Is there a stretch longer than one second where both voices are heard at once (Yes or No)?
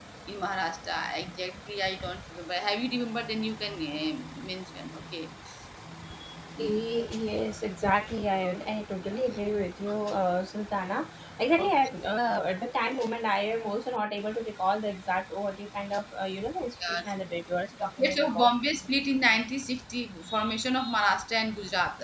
No